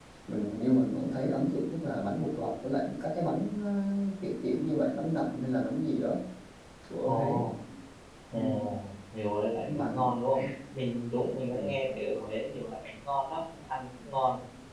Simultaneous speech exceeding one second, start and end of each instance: none

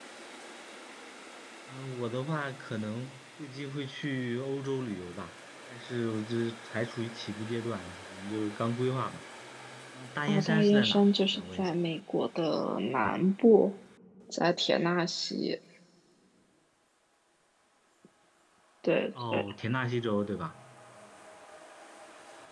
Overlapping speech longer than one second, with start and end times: 10.3-11.7

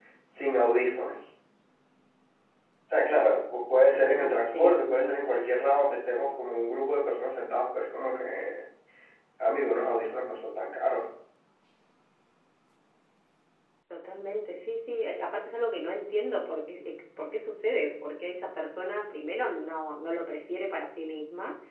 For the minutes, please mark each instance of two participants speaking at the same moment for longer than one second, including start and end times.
3.9-5.7

